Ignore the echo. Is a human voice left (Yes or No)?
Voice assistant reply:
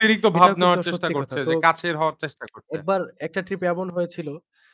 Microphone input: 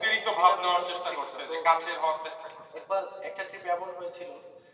No